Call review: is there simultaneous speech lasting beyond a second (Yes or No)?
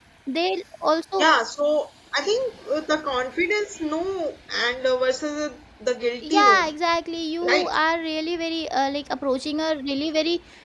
No